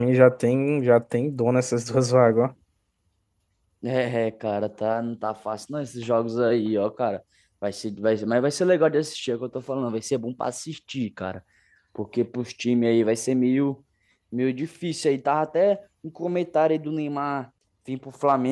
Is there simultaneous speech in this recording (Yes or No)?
No